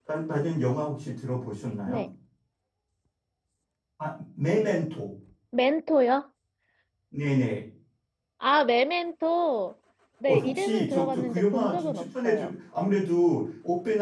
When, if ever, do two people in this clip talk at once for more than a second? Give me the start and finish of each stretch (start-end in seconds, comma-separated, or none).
10.3-12.5